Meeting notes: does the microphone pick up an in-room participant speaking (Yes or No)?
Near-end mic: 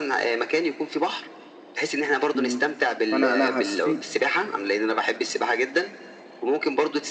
Yes